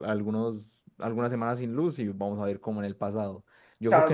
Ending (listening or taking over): taking over